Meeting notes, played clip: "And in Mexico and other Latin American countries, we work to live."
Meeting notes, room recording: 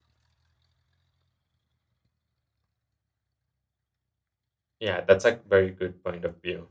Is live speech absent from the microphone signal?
No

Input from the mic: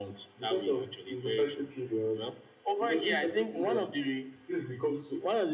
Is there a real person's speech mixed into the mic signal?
No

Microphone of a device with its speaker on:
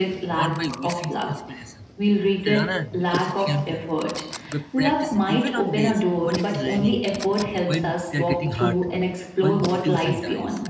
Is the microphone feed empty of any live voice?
No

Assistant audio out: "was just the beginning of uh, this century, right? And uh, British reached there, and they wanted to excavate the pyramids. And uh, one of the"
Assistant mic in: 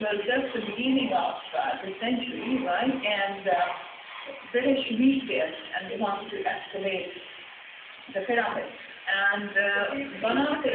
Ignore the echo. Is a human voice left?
Yes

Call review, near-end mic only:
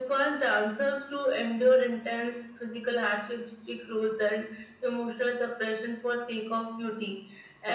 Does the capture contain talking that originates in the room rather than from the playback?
No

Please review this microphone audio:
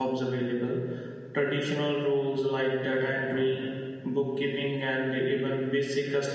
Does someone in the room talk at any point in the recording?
Yes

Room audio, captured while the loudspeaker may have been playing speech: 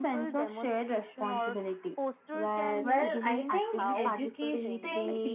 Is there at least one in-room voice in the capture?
Yes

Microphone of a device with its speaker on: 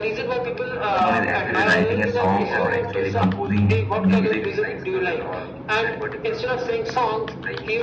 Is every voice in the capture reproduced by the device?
No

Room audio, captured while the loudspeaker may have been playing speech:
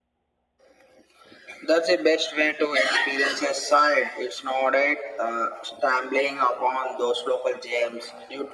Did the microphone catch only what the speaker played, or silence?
Yes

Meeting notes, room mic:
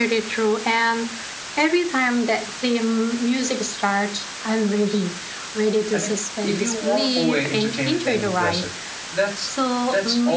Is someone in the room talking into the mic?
Yes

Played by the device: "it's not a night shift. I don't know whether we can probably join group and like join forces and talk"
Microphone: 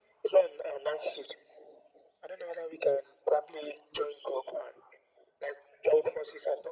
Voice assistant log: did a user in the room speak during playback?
No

